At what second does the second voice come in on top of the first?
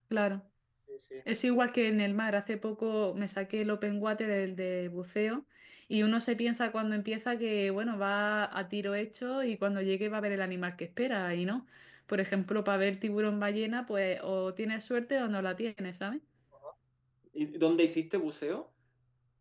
none

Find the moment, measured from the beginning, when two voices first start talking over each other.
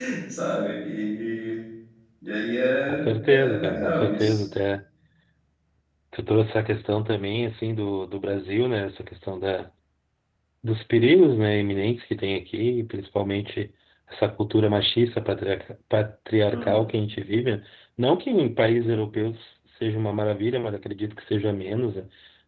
2.8 s

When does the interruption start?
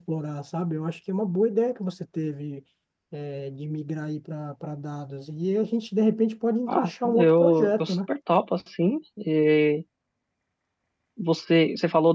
6.7 s

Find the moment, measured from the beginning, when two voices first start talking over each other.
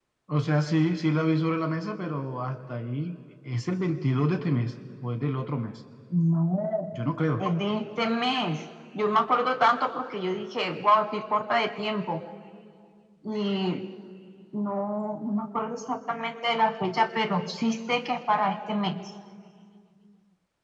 none

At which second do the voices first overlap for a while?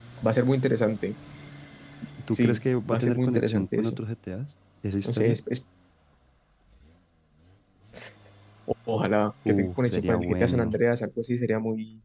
2.3 s

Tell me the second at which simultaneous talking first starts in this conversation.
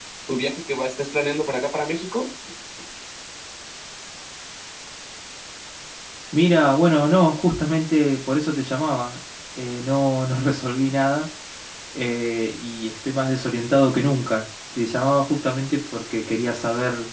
none

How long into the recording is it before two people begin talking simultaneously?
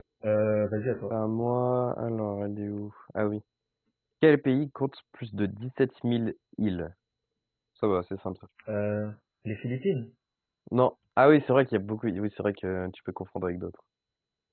none

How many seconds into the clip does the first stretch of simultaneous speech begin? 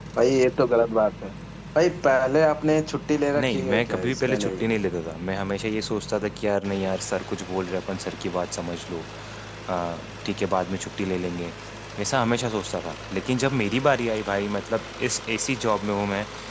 3.4 s

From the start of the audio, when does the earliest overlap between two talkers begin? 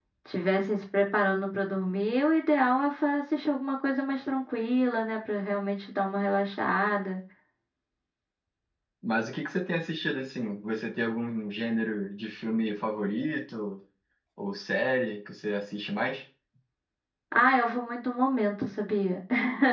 none

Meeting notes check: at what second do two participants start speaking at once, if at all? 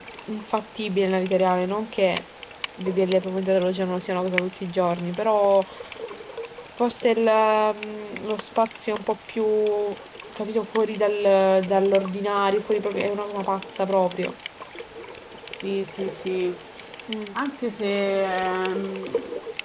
none

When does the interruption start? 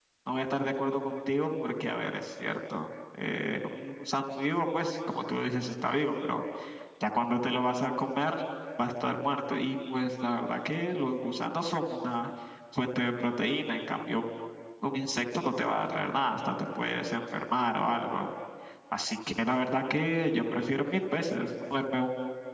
none

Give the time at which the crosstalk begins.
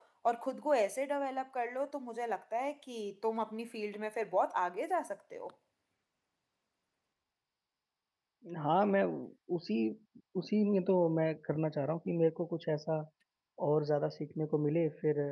none

